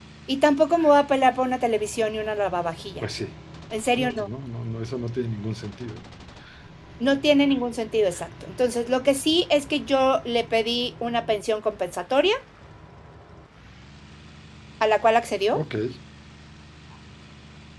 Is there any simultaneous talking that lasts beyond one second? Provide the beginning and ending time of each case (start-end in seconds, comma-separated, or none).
none